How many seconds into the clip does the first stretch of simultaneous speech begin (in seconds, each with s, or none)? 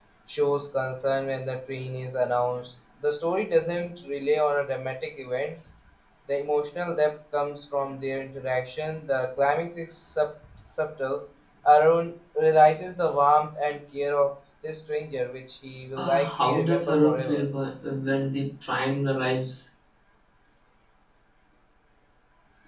16.0 s